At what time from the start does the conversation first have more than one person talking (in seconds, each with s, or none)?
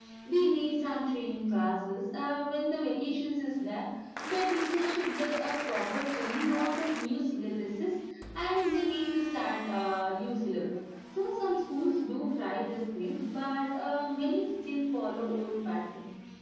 none